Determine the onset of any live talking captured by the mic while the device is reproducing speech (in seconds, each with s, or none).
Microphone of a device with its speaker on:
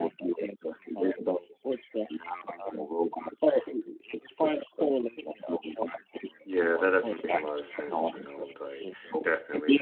6.4 s